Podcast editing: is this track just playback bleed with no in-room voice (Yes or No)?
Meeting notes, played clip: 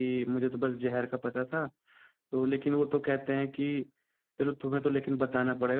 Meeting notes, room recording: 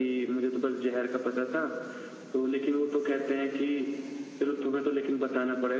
Yes